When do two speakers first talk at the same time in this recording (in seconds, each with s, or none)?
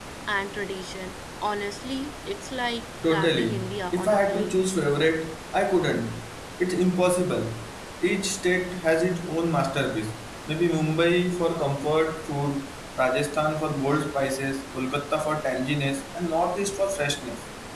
3.0 s